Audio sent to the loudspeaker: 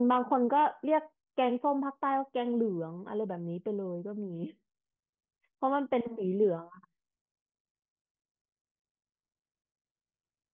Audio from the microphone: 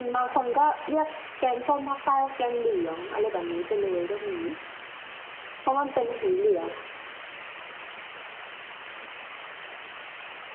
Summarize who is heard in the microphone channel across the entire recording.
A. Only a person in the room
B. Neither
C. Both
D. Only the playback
D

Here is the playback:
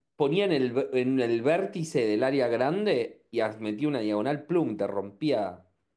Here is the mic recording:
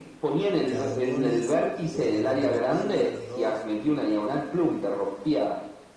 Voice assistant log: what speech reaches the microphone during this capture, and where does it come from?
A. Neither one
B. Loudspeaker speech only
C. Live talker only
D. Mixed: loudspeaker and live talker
D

